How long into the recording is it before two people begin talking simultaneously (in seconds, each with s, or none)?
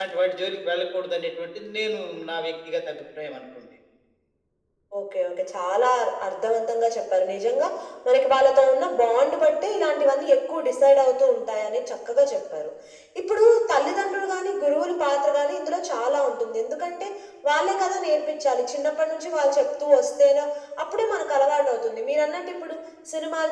none